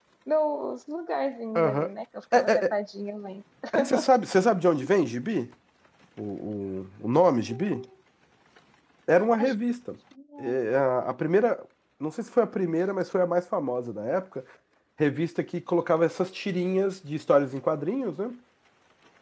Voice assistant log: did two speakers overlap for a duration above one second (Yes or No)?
No